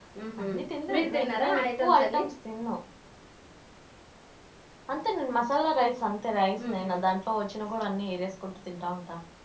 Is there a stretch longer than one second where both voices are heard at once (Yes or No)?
Yes